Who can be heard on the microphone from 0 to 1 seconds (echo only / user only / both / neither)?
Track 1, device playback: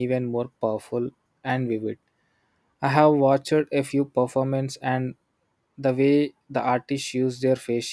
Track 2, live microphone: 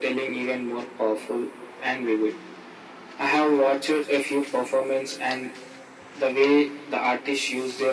echo only